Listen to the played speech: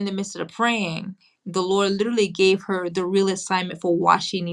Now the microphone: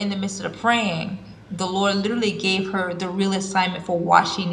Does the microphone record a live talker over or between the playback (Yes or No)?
No